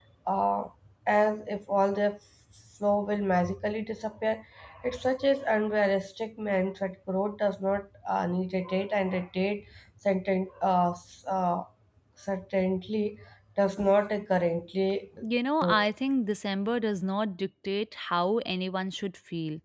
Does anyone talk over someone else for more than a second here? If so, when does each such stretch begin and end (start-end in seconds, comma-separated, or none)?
none